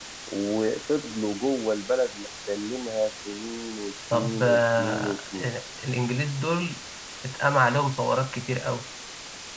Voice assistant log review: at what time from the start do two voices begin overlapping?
4.1 s

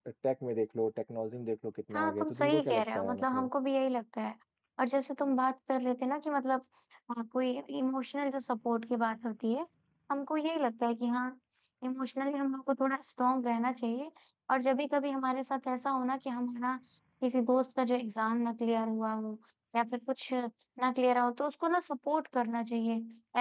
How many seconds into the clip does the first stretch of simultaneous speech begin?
1.9 s

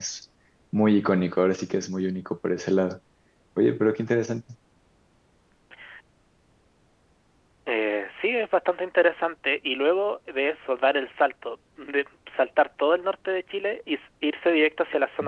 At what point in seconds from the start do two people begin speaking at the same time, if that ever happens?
none

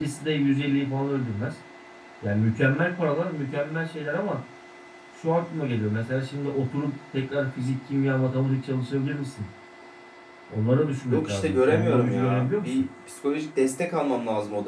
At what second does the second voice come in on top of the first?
11.1 s

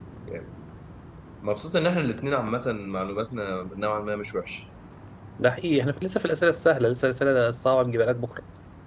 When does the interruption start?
none

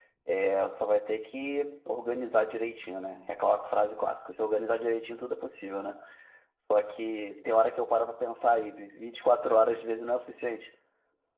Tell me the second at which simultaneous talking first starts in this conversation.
none

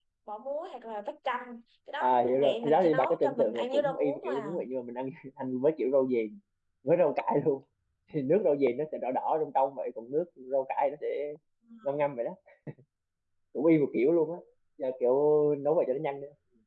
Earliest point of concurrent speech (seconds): 2.0 s

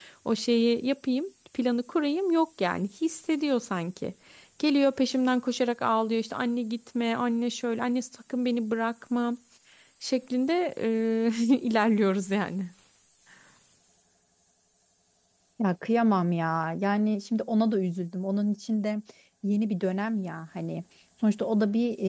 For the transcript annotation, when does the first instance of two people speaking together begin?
none

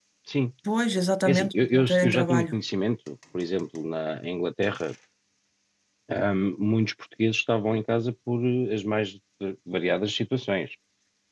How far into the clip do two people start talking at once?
1.3 s

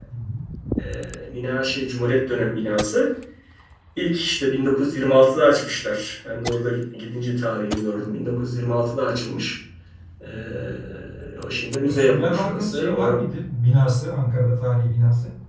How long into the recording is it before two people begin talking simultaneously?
11.8 s

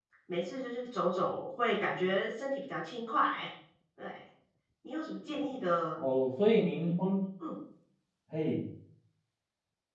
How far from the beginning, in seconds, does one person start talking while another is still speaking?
none

